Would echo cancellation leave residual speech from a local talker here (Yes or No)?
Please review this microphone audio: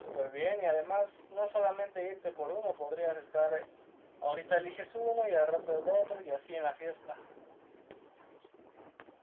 No